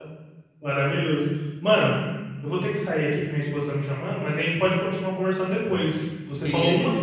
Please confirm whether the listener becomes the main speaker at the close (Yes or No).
No